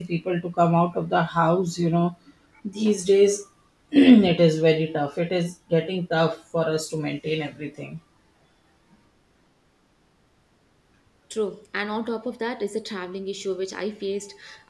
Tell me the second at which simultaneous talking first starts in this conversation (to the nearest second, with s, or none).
none